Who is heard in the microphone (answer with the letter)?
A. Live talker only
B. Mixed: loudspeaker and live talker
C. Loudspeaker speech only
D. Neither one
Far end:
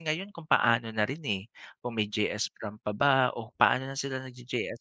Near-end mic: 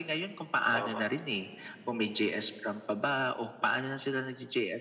B